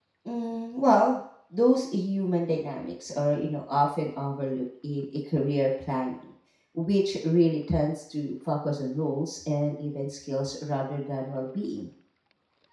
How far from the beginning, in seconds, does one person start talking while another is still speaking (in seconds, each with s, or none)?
none